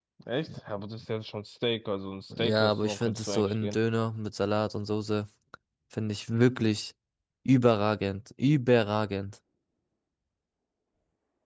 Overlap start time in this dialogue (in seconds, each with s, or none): 2.3 s